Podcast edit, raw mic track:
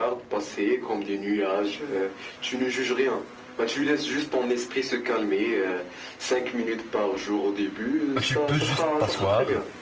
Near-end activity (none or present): present